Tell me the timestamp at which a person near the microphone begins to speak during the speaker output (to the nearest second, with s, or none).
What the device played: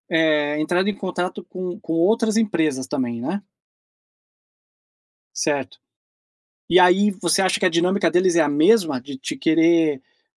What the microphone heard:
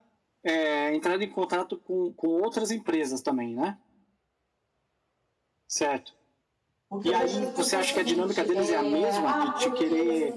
7 s